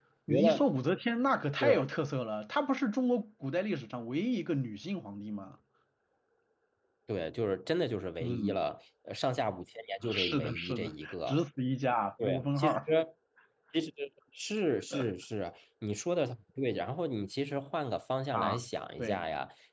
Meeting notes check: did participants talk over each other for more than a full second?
Yes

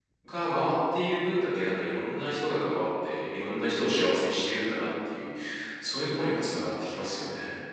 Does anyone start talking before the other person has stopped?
No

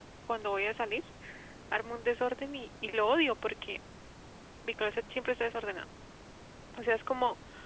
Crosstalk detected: No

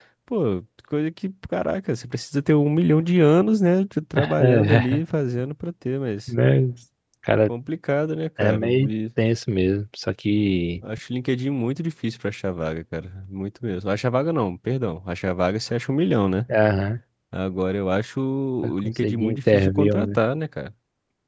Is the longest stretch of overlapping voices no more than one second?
No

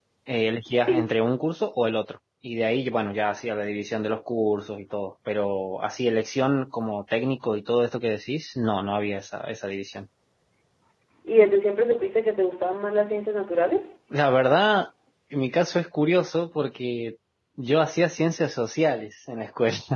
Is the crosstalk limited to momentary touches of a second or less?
Yes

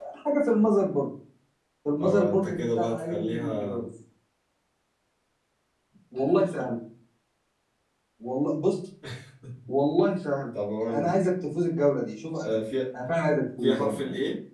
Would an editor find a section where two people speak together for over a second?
Yes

